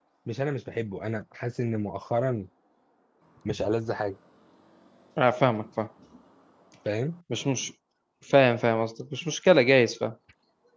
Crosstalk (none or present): none